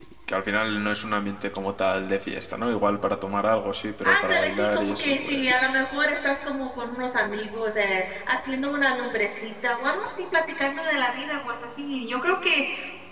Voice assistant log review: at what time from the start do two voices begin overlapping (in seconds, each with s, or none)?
4.0 s